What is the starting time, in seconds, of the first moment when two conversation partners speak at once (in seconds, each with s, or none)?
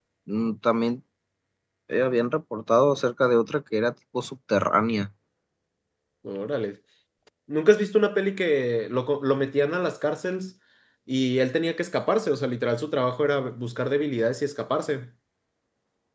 none